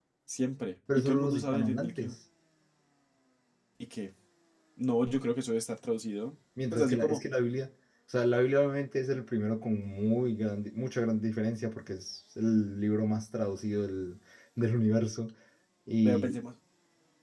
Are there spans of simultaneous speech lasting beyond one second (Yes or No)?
Yes